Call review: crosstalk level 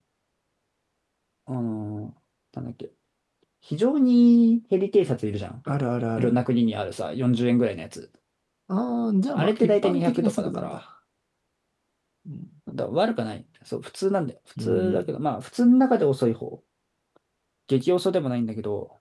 present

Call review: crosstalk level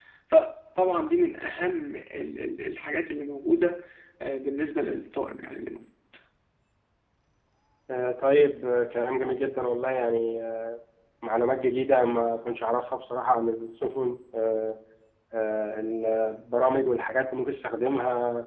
none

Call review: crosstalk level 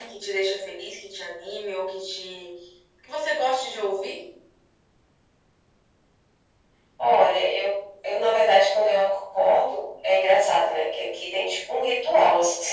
none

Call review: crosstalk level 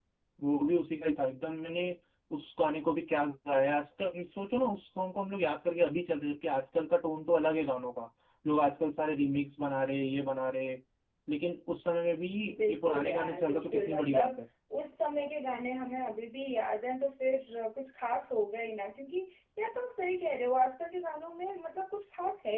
present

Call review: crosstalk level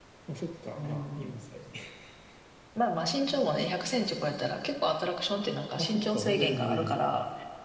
present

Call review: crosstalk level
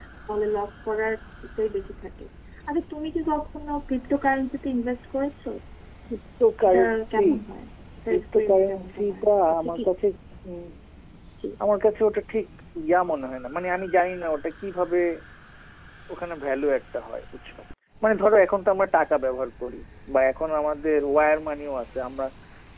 present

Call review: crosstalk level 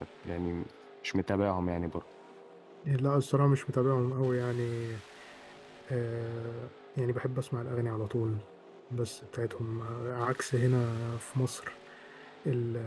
none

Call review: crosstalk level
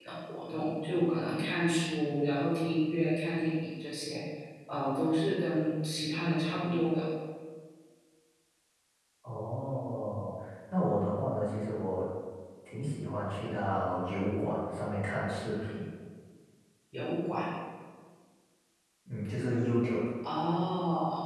none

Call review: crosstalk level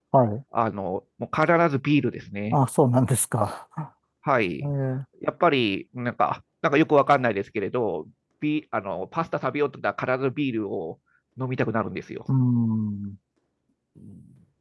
none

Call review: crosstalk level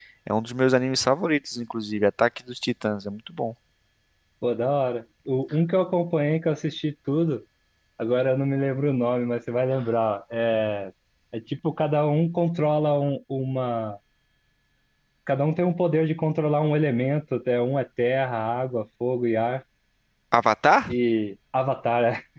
none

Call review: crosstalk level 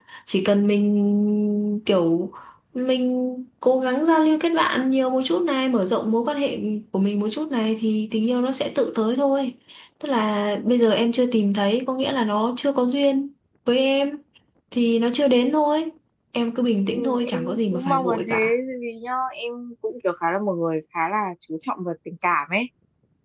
present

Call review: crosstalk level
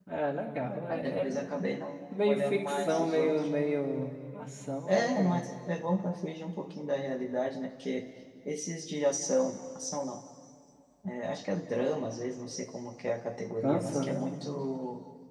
present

